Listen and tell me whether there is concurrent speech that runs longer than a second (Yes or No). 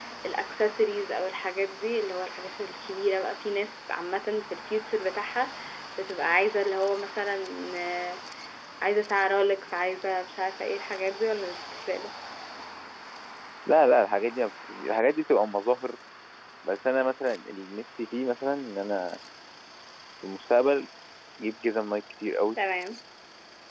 No